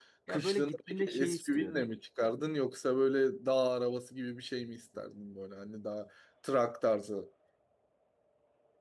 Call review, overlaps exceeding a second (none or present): present